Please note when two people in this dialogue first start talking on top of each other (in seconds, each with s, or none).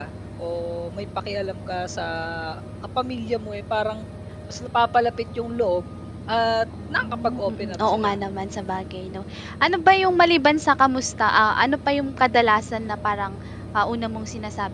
6.9 s